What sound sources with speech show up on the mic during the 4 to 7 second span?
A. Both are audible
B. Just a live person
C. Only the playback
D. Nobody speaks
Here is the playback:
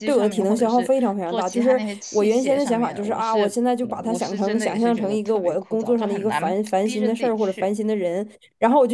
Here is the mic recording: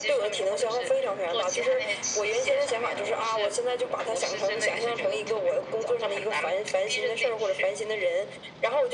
C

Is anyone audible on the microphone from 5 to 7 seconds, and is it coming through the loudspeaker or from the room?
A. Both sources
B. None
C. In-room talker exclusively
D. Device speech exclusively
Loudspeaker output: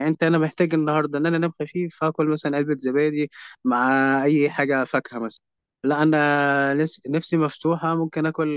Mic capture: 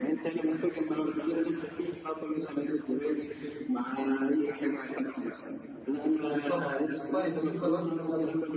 A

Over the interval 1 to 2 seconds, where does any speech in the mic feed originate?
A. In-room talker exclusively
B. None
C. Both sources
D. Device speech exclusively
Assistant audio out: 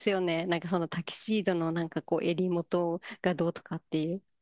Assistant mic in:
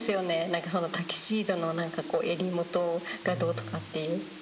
D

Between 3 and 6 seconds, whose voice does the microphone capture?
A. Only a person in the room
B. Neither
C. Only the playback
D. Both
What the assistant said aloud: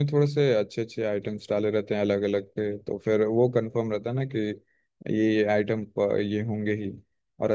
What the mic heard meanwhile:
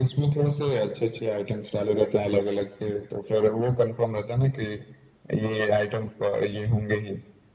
C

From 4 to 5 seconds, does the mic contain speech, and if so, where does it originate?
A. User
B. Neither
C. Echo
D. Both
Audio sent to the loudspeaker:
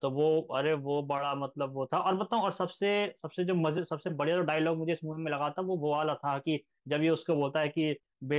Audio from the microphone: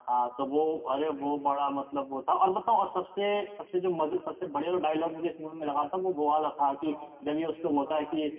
C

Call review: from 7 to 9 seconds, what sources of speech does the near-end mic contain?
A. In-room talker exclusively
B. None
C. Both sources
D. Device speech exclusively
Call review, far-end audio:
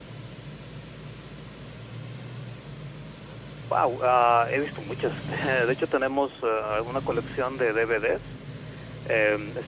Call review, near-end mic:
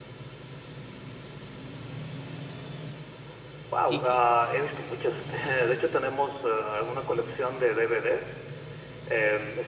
D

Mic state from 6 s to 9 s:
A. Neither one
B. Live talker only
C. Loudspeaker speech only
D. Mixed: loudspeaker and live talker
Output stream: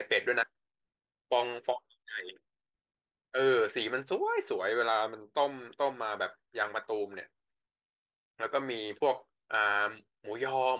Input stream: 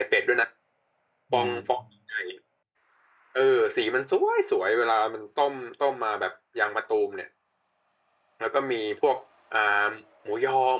C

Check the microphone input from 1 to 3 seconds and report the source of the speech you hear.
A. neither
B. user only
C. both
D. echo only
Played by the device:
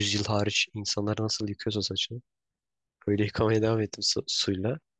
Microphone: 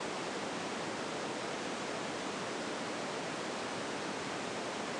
A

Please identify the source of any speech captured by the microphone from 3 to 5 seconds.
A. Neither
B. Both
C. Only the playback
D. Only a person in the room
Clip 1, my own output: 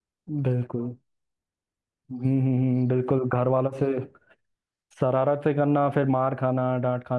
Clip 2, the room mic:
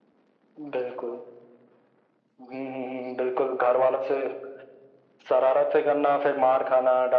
C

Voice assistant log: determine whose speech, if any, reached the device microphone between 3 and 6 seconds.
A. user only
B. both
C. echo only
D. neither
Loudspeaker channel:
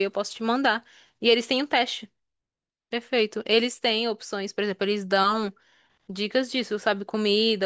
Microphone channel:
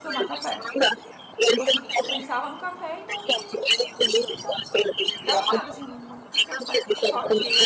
B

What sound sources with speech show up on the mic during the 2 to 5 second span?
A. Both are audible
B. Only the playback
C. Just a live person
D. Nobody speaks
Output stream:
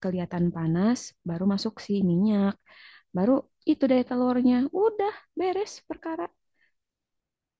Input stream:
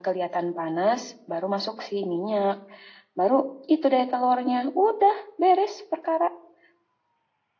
B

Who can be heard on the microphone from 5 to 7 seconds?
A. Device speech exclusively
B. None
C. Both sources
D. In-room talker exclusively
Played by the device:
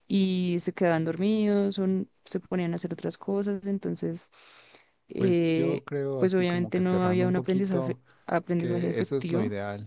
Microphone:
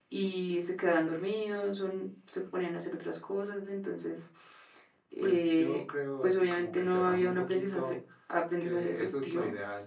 A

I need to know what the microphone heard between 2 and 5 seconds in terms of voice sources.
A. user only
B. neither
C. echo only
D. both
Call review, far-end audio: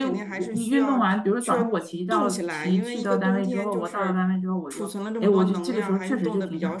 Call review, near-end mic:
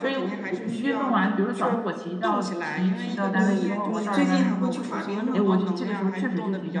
D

